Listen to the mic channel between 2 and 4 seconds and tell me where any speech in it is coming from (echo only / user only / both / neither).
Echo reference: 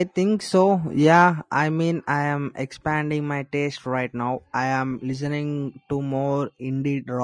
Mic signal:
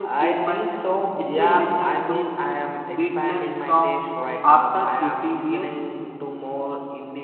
both